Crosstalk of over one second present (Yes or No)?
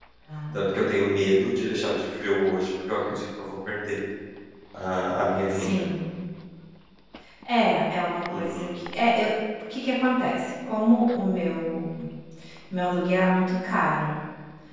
No